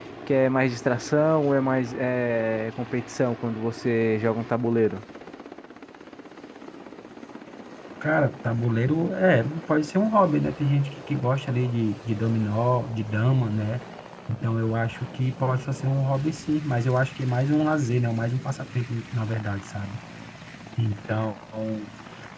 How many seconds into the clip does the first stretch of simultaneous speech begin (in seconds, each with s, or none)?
none